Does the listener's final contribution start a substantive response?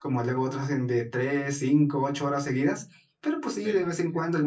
No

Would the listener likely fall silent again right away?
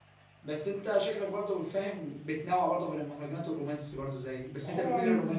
No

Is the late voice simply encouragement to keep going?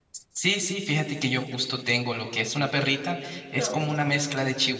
Yes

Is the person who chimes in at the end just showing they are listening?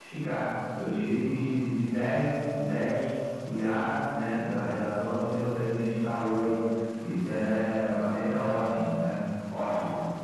Yes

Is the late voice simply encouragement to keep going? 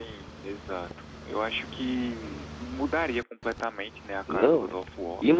No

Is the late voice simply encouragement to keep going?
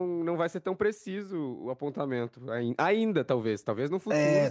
No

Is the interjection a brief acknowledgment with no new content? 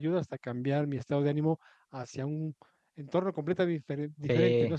Yes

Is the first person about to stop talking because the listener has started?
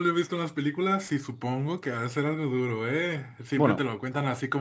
No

